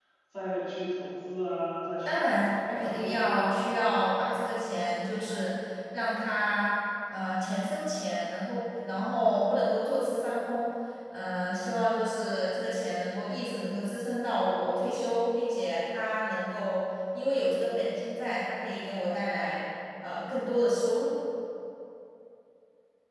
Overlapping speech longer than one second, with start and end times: 2.0-3.4

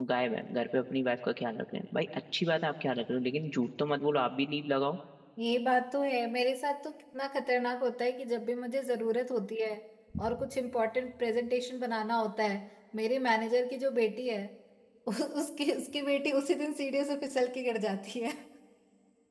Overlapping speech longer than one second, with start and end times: none

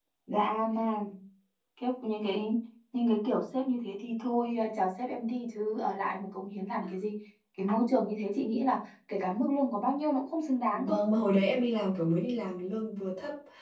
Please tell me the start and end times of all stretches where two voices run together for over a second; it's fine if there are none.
none

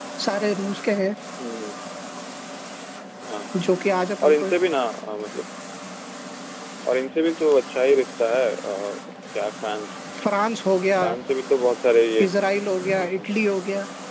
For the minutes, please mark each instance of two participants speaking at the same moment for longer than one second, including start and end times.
none

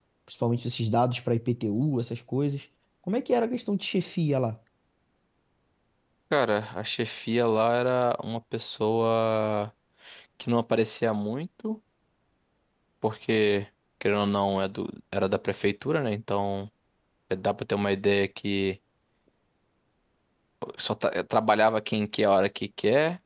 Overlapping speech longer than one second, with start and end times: none

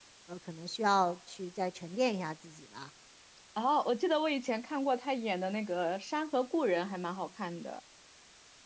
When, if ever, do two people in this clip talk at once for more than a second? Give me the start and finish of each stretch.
none

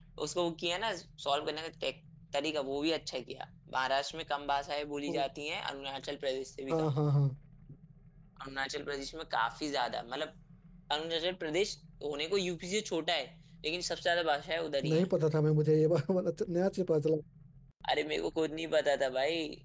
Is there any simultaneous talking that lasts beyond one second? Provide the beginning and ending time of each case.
none

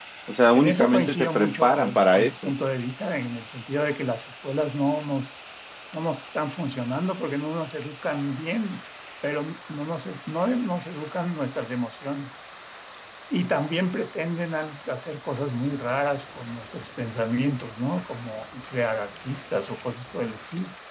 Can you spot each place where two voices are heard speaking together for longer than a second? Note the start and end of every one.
0.5-2.5

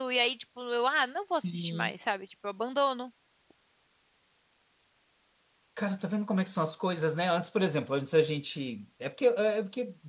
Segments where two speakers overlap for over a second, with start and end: none

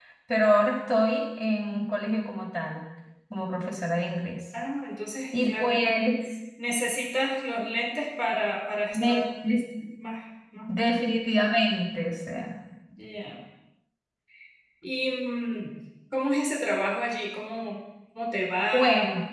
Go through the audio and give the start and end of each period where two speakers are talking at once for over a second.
none

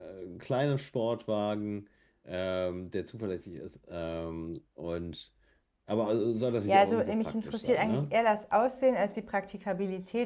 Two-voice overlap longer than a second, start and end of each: 6.7-8.2

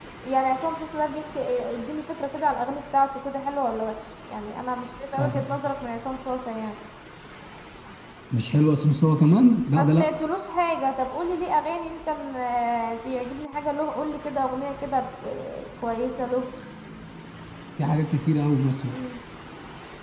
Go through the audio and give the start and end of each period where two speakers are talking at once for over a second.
none

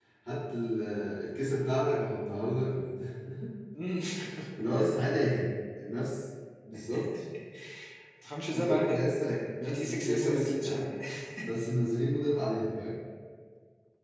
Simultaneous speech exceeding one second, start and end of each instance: 9.6-10.9

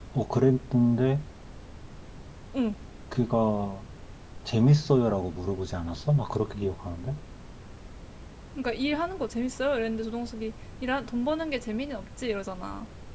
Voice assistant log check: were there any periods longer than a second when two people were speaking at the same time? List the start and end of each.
none

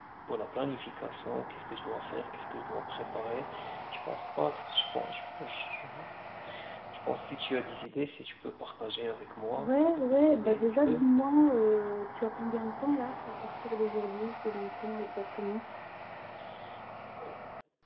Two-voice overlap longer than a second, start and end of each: 9.6-11.0

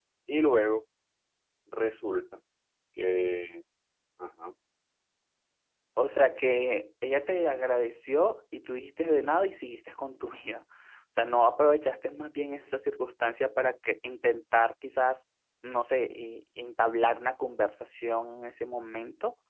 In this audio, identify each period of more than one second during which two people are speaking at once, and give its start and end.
none

